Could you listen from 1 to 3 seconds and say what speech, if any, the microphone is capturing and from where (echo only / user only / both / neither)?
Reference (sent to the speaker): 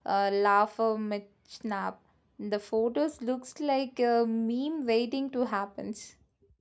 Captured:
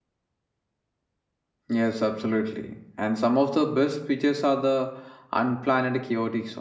user only